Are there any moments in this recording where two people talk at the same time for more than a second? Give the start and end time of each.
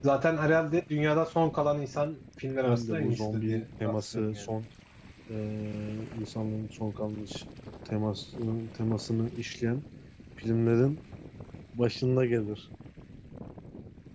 2.6-4.5

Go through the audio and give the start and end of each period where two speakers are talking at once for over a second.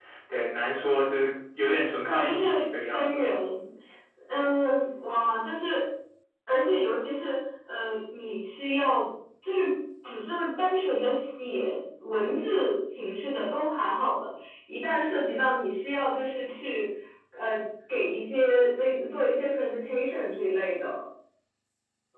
none

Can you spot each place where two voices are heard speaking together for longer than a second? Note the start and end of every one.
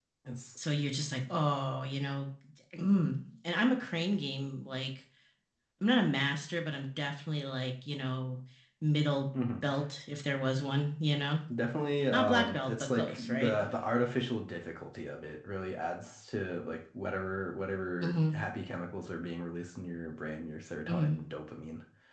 12.1-13.6

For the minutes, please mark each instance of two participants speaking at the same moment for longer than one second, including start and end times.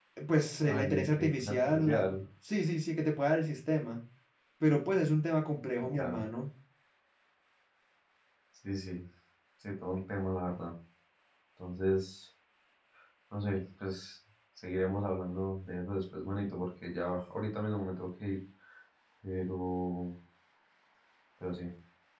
0.6-2.1

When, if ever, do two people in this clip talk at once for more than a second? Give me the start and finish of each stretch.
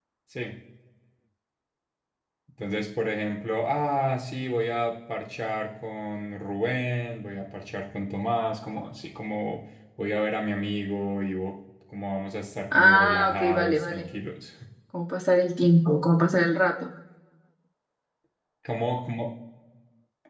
12.7-14.1

